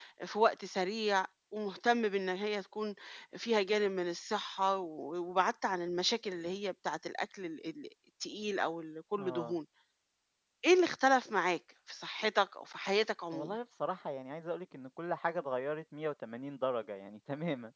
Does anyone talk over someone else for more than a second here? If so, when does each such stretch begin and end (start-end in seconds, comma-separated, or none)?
none